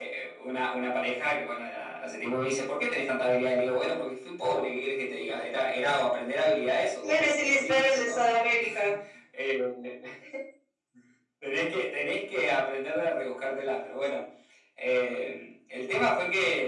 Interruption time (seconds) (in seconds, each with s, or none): 7.0 s